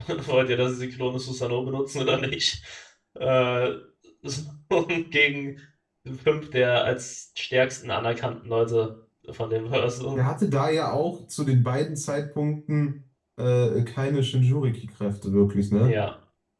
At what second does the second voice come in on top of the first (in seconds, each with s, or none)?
none